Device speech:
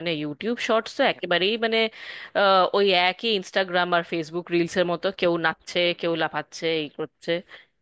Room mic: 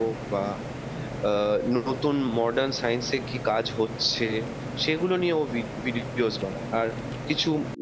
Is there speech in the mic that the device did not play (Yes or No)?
Yes